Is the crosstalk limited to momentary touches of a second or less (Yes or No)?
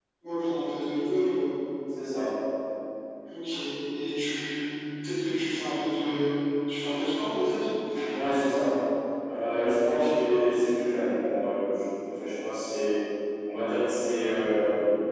Yes